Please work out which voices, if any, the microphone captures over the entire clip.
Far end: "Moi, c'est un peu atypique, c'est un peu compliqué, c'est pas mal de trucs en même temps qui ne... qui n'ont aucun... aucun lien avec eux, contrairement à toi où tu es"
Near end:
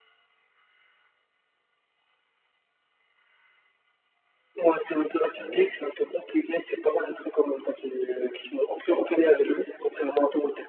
both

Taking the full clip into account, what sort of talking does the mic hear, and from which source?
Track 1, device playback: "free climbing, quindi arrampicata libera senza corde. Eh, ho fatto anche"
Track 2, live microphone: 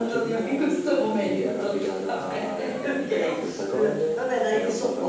both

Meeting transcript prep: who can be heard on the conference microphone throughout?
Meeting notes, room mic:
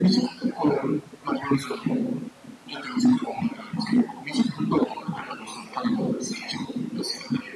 echo only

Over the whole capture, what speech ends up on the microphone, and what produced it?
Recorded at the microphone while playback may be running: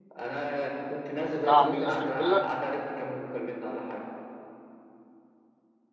both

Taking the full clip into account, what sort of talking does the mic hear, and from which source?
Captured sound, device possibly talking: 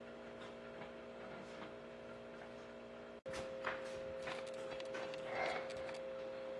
neither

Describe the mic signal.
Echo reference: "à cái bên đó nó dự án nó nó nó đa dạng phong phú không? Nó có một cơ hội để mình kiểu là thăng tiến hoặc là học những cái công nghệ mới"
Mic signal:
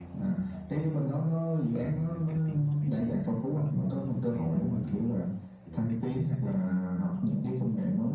both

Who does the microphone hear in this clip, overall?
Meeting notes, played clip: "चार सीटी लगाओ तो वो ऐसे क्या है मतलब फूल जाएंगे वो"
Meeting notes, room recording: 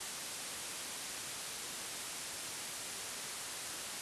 neither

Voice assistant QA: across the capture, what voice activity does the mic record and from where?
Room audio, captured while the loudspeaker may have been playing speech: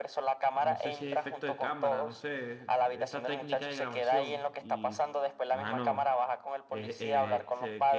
both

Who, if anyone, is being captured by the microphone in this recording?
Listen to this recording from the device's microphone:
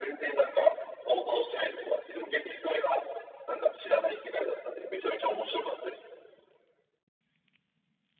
echo only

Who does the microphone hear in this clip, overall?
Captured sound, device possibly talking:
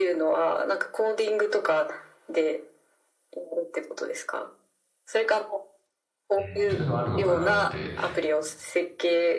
both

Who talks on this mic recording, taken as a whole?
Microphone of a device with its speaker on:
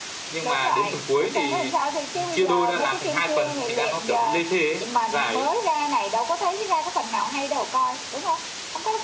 echo only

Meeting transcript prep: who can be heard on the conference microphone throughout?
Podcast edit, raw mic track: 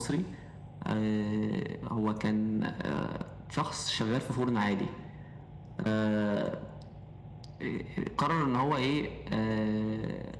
echo only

